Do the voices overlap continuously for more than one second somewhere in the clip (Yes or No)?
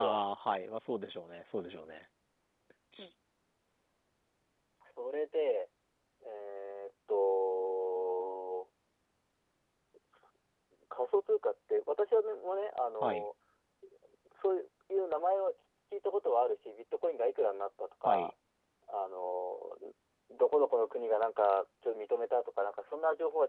No